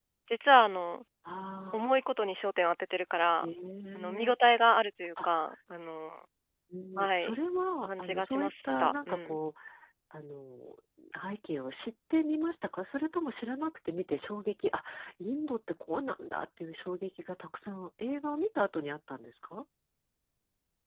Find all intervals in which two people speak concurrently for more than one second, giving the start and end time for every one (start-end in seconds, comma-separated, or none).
7.8-9.3